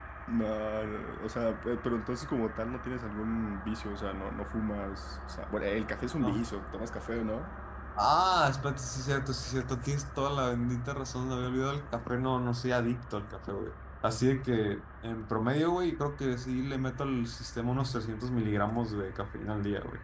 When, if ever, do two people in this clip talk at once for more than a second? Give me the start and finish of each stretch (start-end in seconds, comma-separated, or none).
none